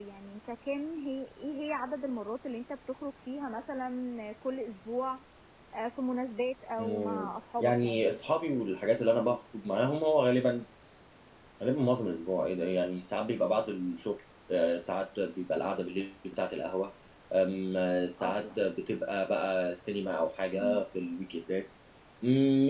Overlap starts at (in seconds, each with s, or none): 6.8 s